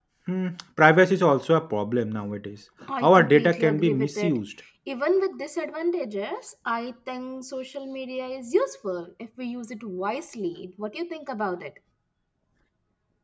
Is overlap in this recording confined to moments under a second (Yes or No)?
No